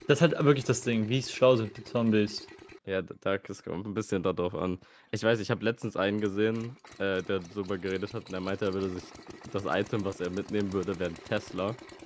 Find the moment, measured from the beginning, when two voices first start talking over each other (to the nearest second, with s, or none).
none